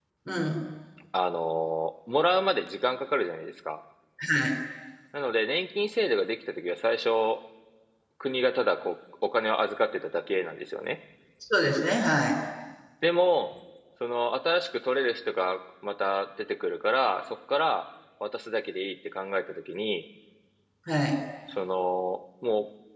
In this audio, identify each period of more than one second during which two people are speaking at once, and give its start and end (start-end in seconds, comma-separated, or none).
none